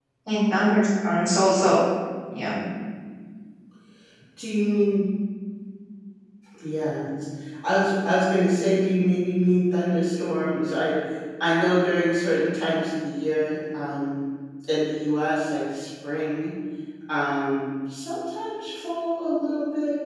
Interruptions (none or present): none